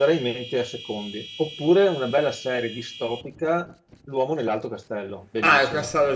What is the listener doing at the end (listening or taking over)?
taking over